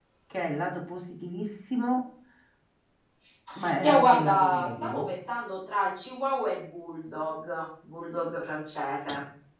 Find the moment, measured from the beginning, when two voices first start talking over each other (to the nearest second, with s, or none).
4 s